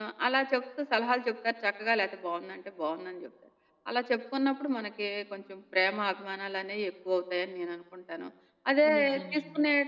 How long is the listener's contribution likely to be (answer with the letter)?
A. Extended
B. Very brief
B